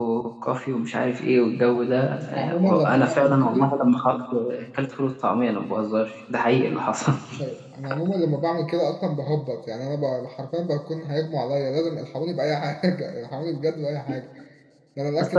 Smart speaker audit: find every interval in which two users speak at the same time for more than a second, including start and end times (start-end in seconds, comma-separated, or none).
2.3-3.7